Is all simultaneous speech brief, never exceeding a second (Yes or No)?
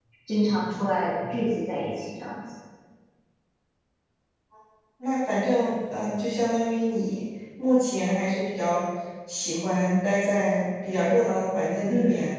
Yes